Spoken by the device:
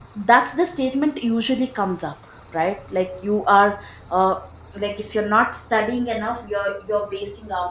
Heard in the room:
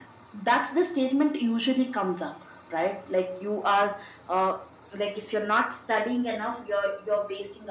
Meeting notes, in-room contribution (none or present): none